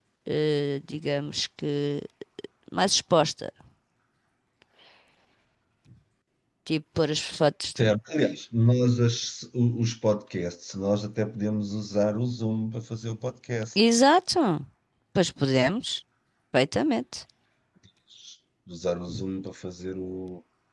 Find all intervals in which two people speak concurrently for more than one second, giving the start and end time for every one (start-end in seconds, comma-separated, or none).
none